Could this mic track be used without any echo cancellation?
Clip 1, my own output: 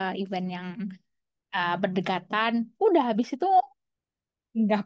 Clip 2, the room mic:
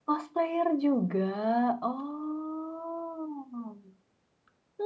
Yes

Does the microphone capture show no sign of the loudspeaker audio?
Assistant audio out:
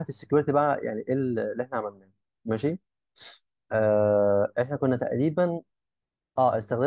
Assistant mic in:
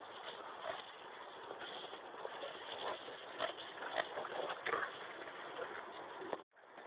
Yes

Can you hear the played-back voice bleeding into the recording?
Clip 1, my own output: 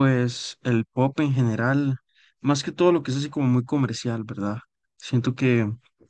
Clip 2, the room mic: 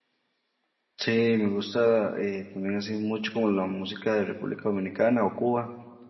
No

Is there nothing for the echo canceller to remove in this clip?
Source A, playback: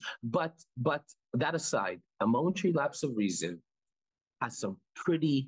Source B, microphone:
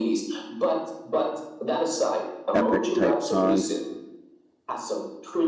No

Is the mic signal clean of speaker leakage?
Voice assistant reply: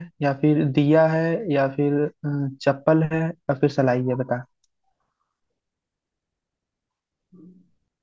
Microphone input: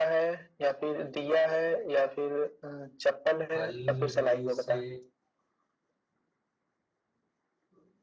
No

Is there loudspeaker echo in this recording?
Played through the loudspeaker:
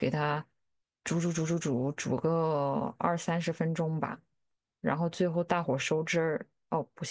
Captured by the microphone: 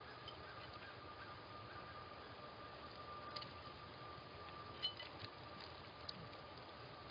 No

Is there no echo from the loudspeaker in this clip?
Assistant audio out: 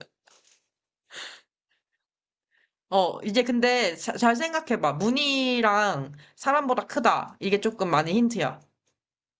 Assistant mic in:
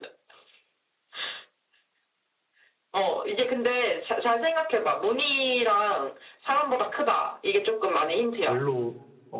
No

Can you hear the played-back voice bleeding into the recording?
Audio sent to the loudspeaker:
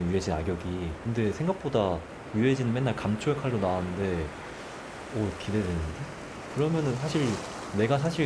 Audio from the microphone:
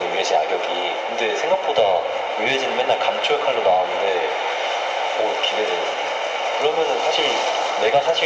Yes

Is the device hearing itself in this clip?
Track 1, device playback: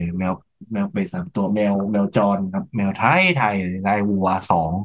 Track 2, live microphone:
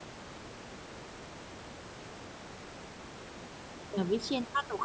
No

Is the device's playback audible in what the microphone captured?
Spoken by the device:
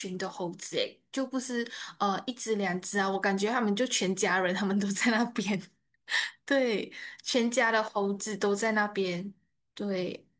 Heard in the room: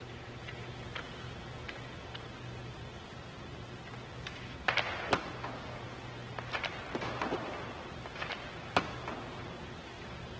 No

